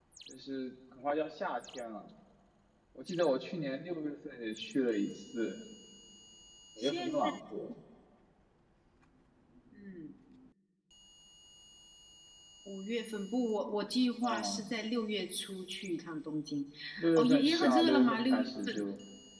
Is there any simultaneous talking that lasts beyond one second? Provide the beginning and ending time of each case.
17.2-18.8

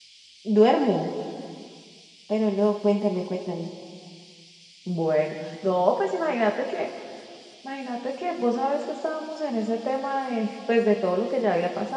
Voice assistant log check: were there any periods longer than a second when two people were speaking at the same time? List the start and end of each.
none

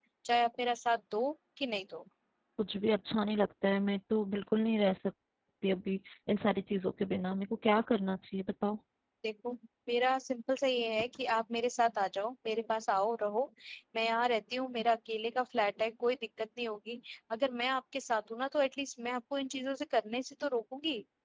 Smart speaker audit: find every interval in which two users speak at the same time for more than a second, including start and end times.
none

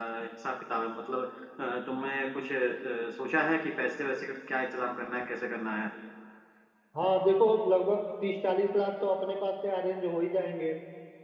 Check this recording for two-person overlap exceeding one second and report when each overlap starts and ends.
none

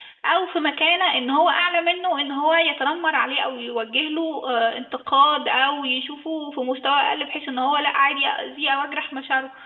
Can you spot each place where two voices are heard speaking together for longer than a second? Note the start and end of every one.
none

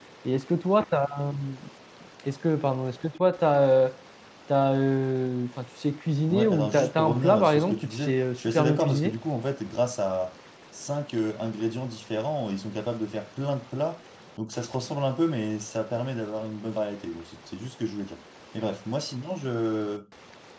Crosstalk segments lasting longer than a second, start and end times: 6.3-9.2

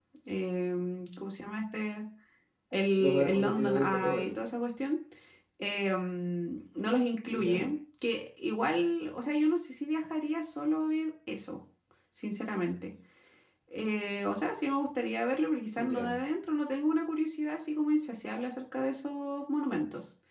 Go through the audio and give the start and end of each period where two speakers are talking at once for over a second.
3.0-4.4

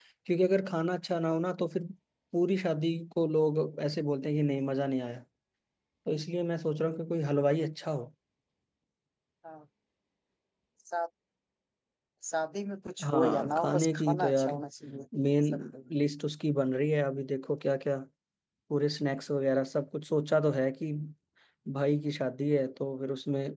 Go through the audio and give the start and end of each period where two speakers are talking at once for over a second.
13.1-14.5

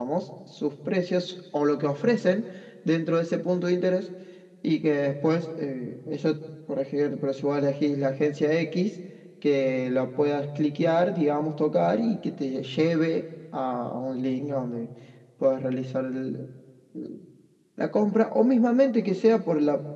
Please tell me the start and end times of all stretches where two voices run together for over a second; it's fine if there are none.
none

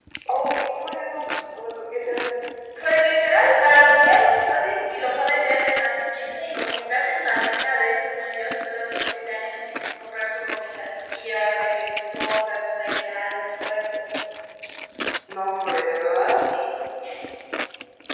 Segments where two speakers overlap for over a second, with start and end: none

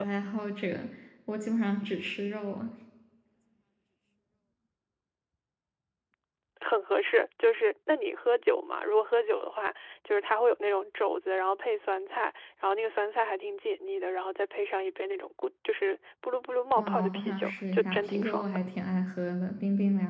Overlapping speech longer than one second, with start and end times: 16.8-18.4

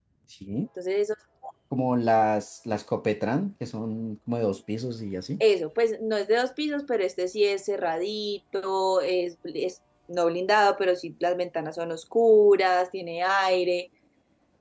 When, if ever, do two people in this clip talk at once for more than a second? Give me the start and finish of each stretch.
none

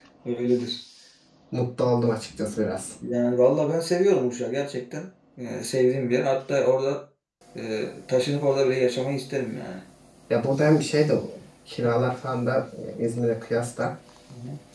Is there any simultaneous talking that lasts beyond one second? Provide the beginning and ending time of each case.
none

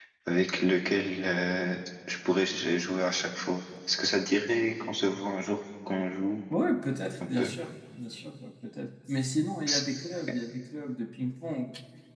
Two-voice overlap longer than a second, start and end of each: none

